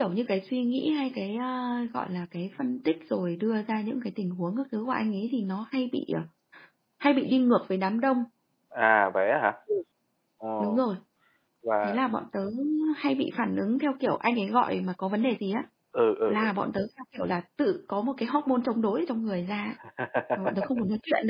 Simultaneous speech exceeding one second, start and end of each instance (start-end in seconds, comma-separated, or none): none